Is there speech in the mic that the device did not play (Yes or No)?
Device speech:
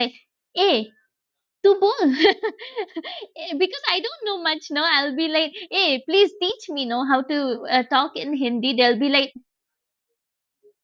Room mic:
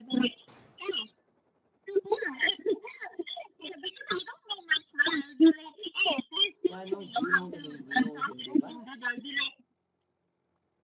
Yes